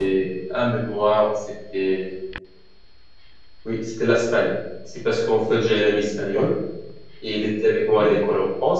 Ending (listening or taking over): listening